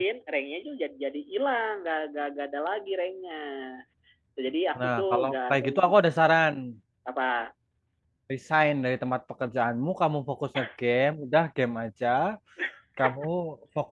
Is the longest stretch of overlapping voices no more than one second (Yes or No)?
No